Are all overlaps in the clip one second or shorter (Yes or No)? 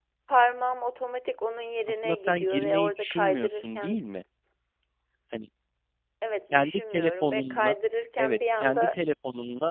No